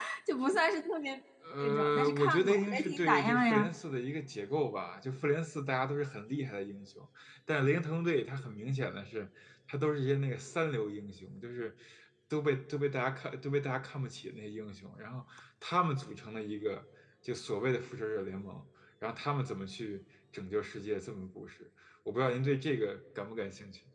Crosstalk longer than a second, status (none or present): present